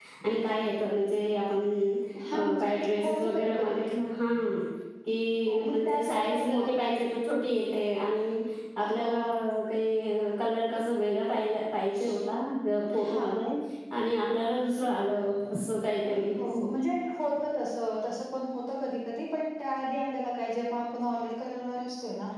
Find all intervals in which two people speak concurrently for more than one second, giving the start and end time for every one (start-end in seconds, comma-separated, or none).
2.6-3.8, 5.5-7.0